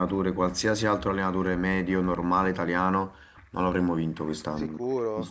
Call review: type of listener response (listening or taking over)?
taking over